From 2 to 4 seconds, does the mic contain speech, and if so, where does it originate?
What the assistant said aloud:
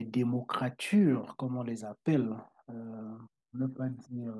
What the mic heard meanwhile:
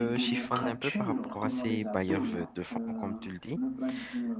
both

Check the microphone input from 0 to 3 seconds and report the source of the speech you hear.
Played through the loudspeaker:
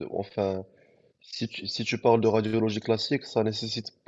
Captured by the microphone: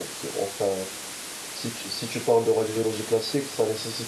echo only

